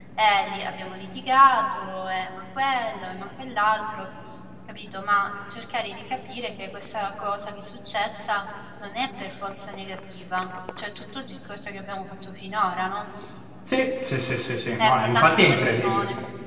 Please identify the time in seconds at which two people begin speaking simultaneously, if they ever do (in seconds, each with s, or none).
14.8 s